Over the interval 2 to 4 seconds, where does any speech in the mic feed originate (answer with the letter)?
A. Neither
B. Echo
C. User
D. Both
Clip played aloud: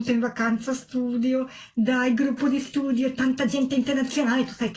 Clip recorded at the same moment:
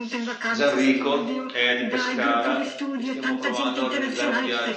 D